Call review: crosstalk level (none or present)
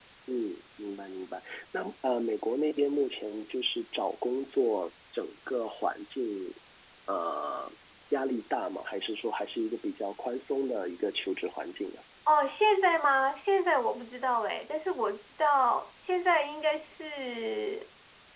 none